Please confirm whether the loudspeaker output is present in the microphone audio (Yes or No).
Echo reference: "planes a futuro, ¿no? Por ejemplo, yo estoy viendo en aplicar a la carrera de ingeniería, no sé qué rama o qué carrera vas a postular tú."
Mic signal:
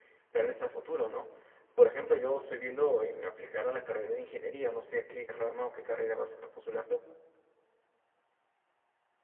Yes